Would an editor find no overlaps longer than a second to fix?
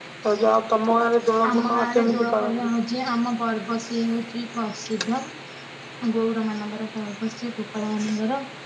No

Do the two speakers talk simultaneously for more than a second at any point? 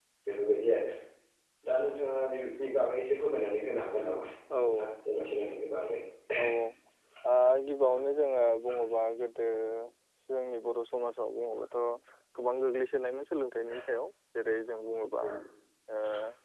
No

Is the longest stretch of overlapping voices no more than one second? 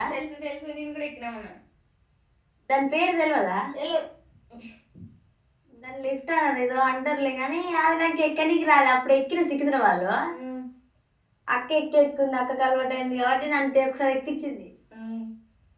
Yes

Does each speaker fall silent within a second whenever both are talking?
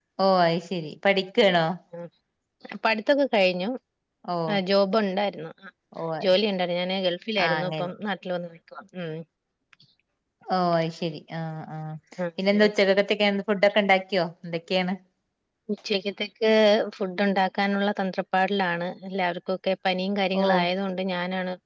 Yes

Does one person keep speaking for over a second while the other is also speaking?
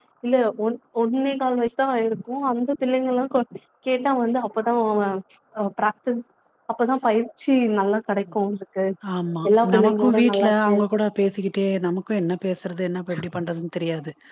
Yes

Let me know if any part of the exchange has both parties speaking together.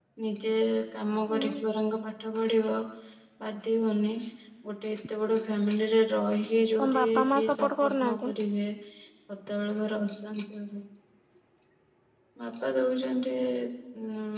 Yes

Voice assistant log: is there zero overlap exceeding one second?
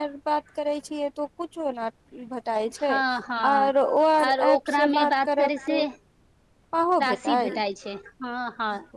No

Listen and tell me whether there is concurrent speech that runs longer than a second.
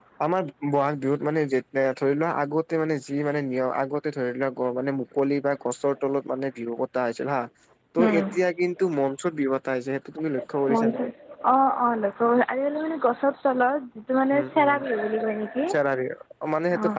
No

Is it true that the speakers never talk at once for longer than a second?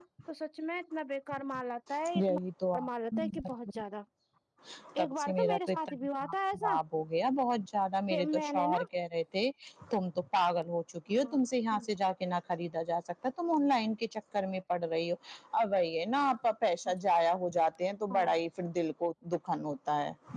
No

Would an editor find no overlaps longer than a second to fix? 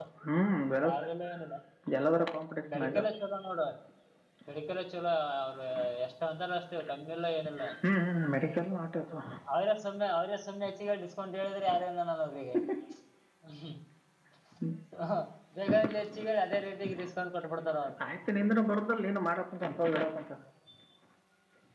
Yes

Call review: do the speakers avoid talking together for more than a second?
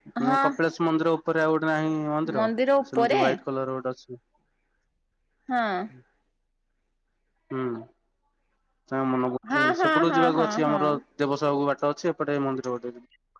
No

